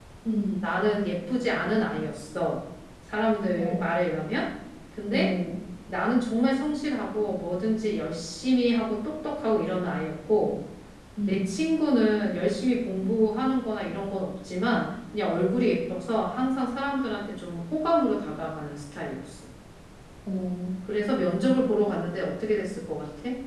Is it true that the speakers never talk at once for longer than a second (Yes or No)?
Yes